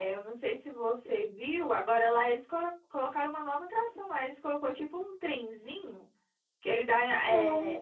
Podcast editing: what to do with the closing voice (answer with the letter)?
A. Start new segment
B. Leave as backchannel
B